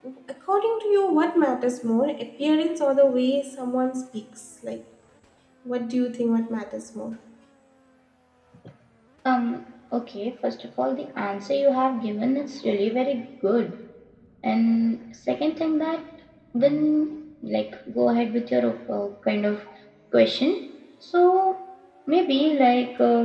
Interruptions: none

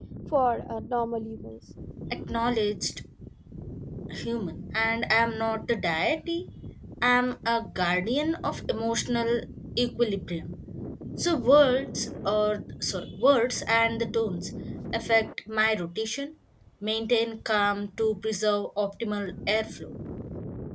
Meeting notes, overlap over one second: none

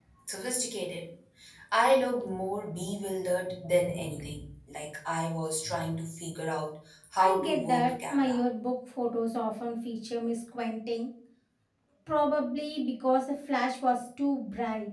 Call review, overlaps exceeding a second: present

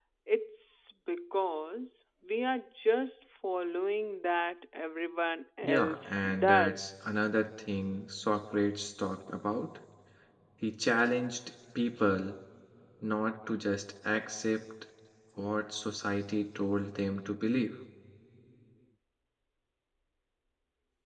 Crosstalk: present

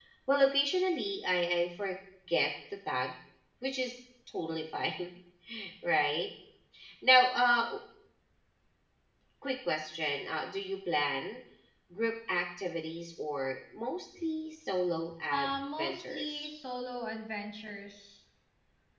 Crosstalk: present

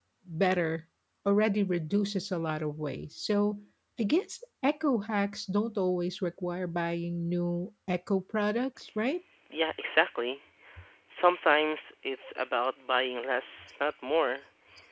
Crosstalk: none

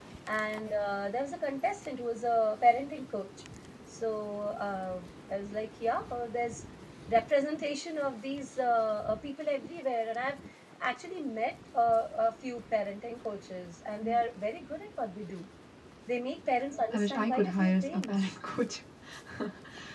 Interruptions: present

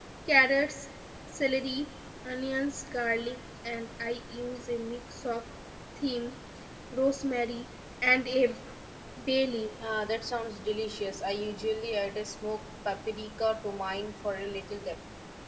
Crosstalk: none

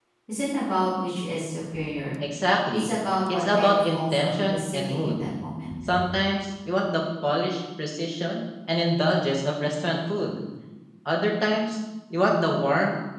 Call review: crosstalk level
present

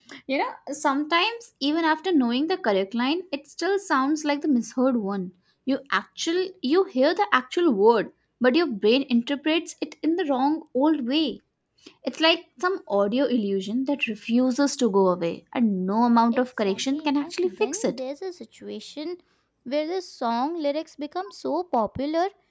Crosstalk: present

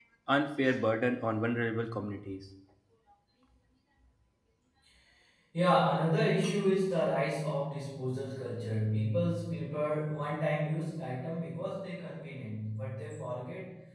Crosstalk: none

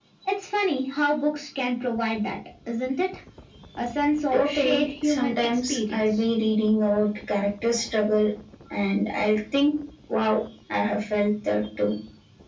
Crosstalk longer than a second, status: present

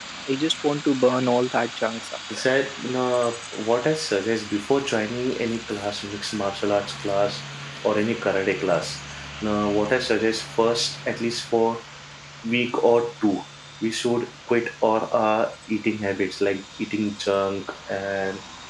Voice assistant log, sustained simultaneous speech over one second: none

